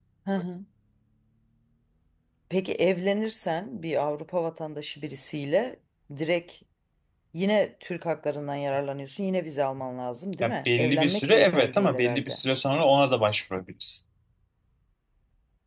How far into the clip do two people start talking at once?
10.4 s

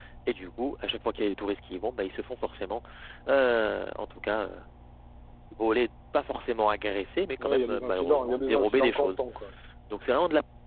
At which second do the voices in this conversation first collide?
7.4 s

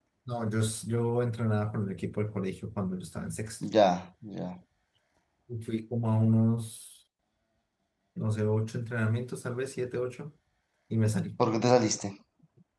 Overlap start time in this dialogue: none

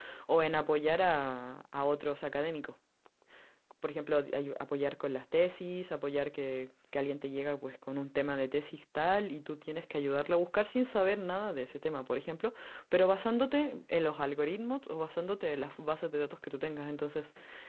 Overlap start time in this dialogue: none

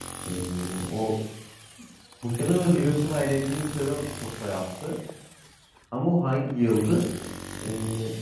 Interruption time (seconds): none

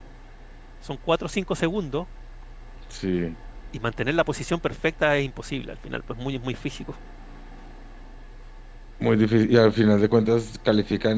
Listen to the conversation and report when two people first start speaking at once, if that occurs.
none

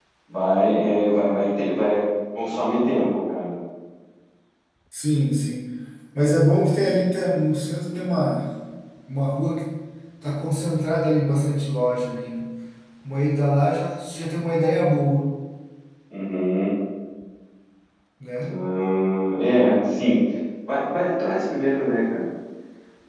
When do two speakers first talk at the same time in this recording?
none

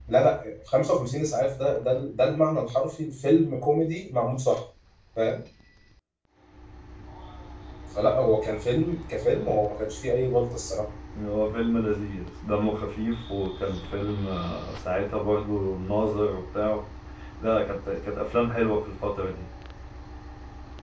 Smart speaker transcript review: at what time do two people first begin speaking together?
none

